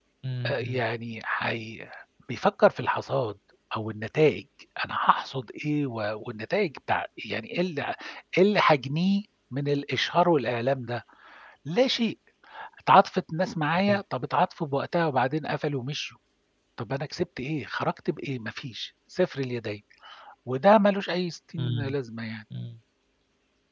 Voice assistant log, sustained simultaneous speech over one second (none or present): none